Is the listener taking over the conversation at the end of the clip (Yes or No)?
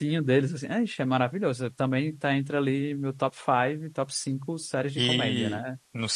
Yes